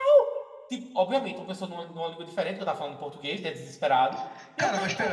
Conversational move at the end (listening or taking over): taking over